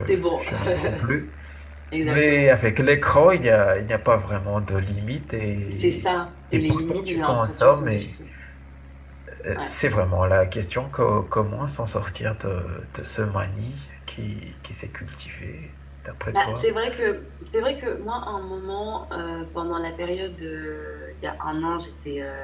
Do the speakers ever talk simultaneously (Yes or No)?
Yes